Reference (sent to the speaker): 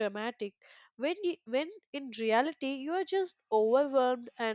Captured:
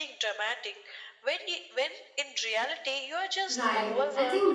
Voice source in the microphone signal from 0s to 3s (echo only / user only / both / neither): echo only